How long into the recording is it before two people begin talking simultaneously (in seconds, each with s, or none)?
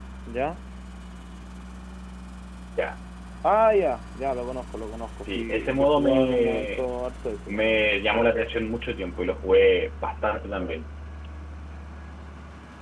5.3 s